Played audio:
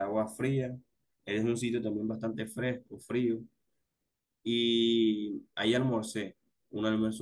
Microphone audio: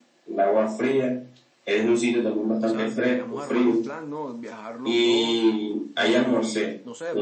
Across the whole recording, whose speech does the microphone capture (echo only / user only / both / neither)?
both